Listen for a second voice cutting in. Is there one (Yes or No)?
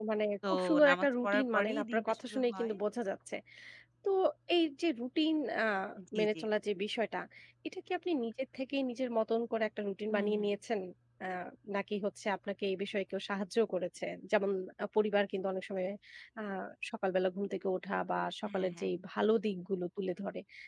Yes